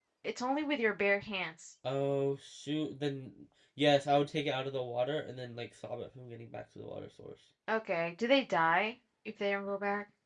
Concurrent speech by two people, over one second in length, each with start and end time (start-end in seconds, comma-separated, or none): none